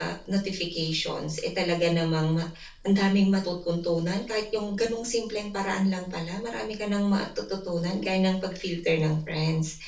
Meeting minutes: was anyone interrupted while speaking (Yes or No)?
No